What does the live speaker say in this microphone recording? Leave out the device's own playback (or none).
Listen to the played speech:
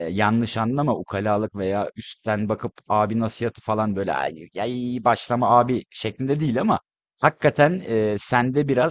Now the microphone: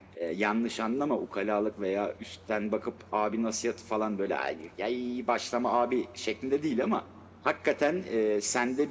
none